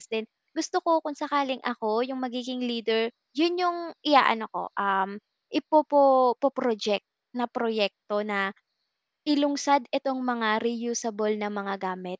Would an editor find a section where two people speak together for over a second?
No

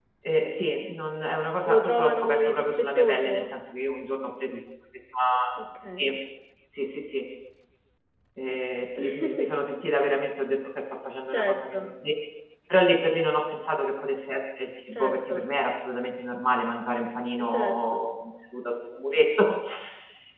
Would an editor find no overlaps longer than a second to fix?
No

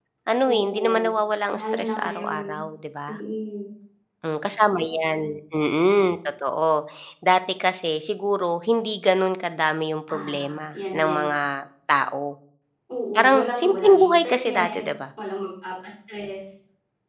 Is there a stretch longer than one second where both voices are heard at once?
Yes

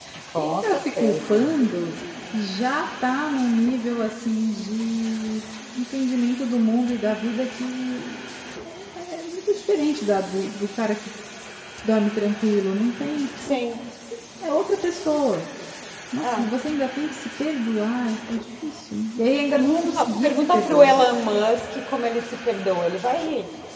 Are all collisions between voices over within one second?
No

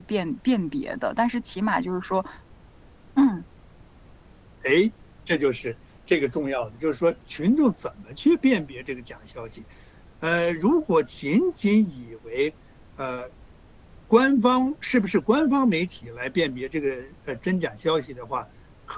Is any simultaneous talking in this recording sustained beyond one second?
No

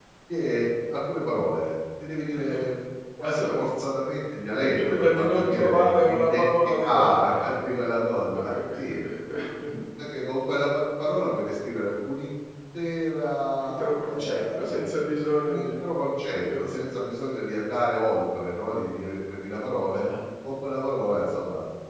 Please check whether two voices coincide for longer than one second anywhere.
Yes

